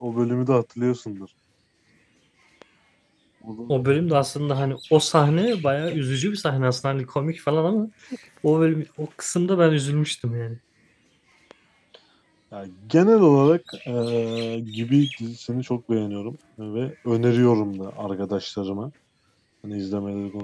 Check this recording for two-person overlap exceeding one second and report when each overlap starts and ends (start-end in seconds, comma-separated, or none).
none